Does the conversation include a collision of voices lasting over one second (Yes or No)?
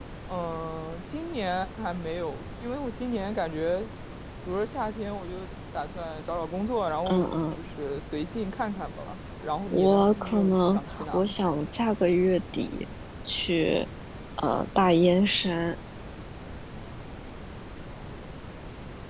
Yes